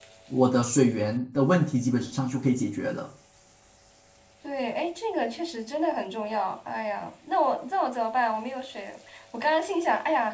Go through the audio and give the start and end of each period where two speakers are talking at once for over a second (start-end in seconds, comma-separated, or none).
none